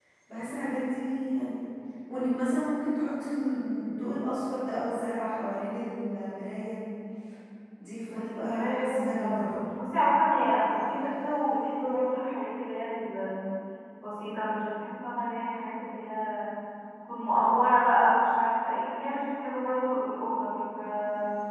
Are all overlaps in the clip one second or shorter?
No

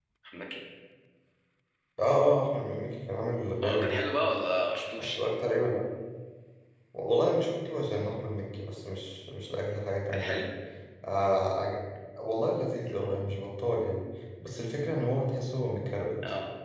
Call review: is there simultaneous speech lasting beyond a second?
No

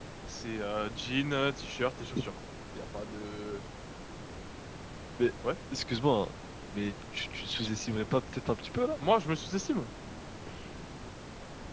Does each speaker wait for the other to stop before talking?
Yes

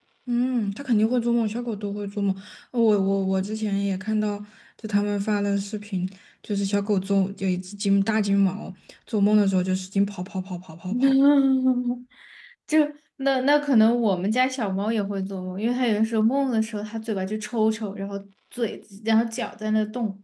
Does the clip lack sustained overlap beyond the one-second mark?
Yes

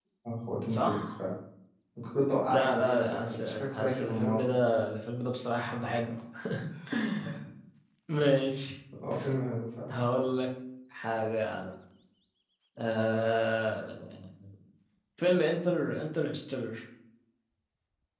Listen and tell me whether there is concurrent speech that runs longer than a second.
Yes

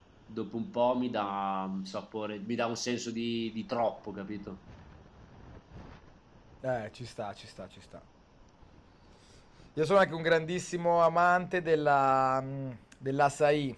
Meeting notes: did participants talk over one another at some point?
No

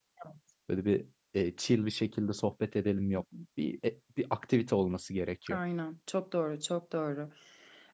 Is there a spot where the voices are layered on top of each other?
No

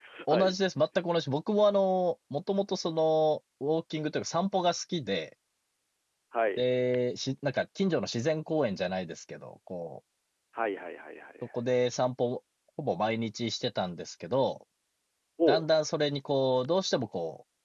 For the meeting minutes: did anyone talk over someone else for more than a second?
No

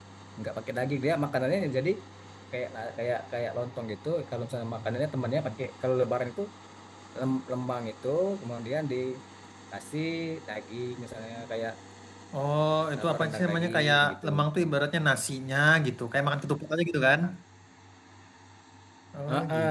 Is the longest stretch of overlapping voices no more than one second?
No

